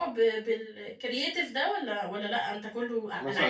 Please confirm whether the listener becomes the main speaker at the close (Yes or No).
Yes